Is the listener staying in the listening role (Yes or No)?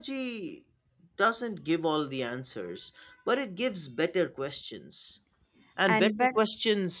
Yes